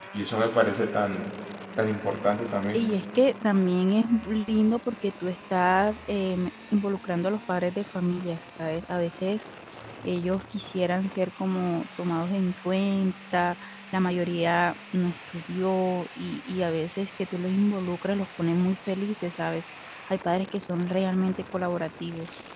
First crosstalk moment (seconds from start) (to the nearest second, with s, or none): none